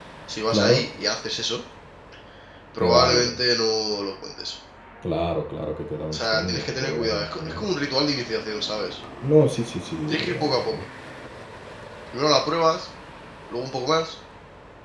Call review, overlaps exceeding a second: present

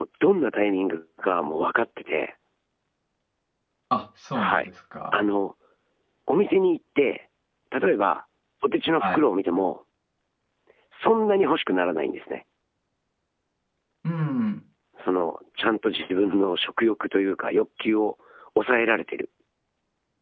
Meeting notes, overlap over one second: none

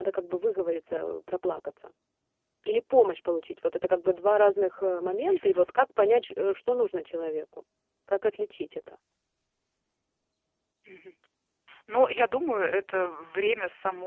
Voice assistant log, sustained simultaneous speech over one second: none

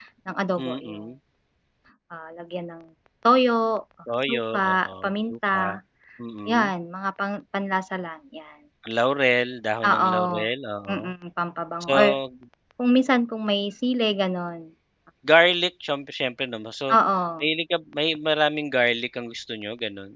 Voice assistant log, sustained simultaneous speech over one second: present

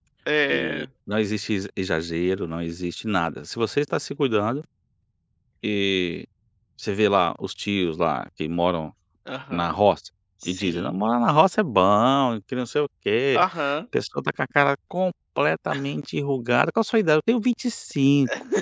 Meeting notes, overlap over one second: none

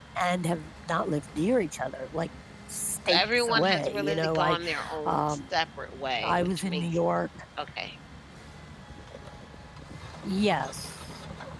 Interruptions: present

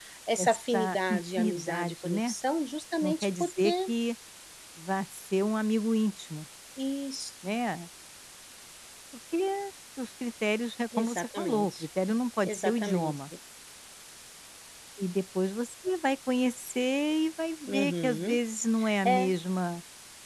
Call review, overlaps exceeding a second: present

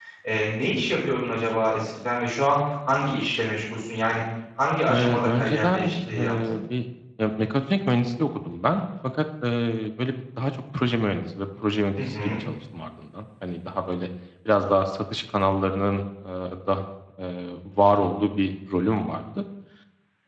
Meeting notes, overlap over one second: present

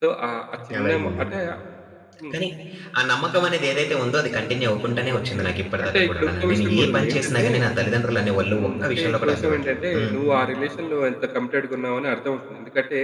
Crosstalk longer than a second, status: present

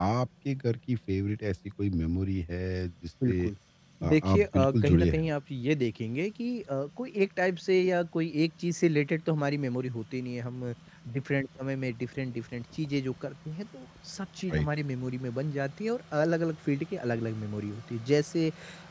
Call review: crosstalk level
present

